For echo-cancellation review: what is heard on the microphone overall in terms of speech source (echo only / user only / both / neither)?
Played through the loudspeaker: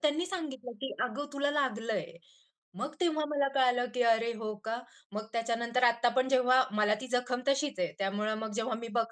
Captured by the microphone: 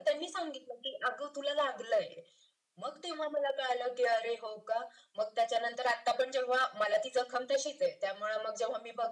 echo only